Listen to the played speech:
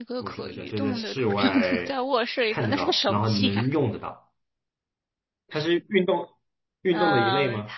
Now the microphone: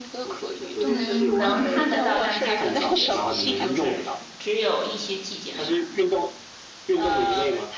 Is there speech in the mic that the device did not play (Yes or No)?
Yes